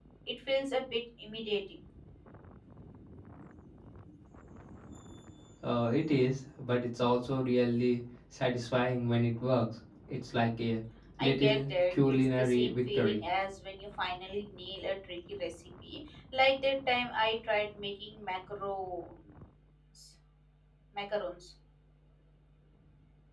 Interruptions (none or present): present